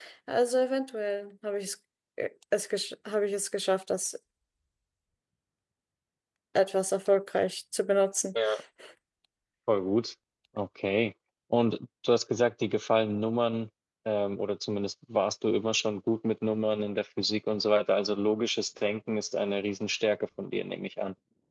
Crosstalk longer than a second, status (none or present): none